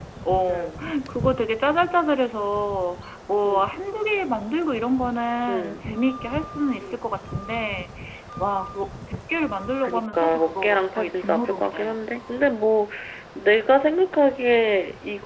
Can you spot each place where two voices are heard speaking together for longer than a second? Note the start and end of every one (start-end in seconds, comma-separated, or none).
9.8-12.0